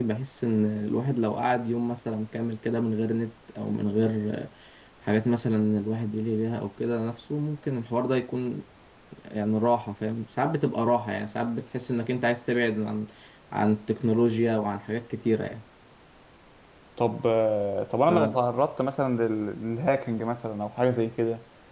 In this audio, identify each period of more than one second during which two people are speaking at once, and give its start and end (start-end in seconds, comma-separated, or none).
none